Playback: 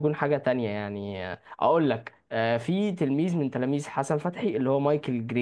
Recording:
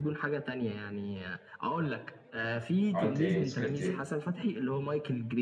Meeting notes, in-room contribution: present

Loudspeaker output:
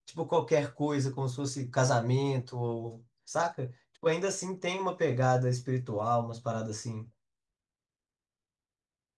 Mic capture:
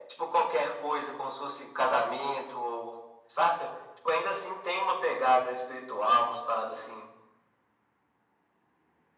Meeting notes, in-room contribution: none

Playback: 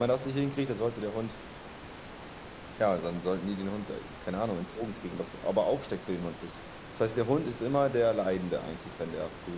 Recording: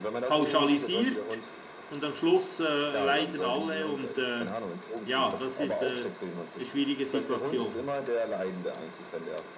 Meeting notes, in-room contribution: present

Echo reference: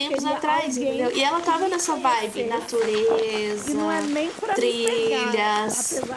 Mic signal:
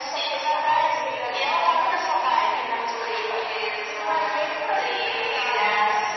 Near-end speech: none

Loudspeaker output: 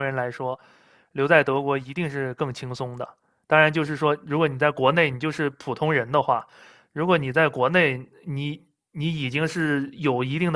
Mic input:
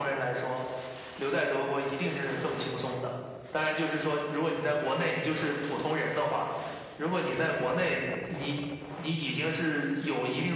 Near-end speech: none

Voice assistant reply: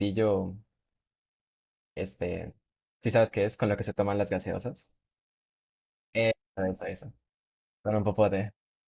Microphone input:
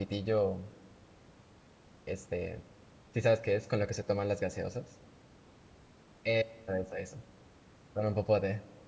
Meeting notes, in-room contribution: none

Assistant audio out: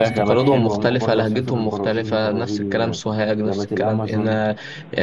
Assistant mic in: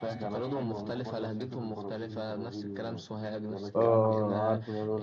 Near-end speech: present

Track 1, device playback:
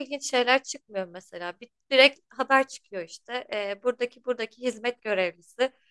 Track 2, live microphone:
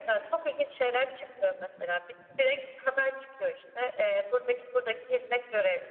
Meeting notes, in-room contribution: none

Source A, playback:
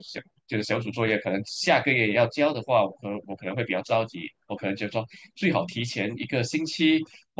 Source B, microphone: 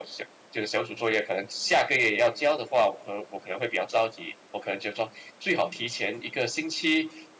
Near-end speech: none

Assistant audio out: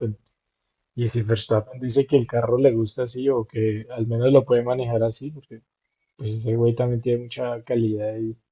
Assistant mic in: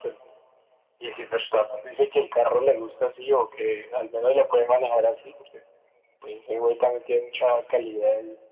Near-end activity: none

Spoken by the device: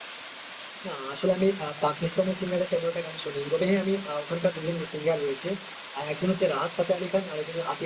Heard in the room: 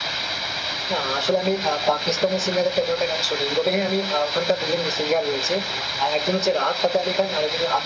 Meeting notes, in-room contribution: none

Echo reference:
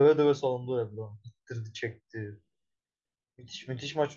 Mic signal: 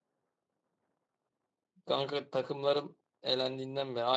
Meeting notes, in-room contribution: present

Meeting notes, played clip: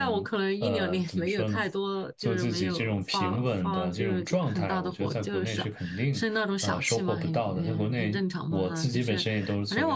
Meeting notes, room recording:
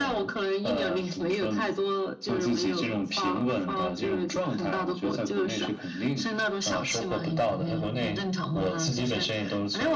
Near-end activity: none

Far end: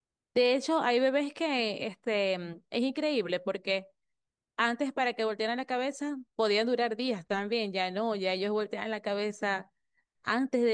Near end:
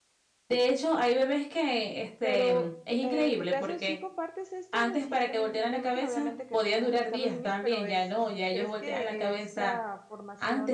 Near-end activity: present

